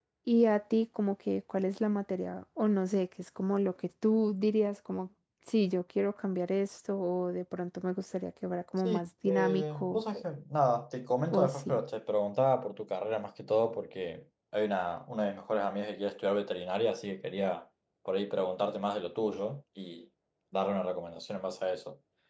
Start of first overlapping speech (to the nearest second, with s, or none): 9 s